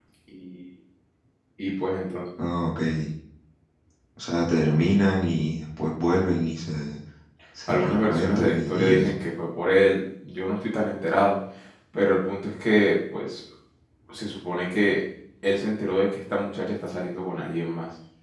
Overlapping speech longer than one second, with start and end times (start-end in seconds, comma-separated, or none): 7.7-9.1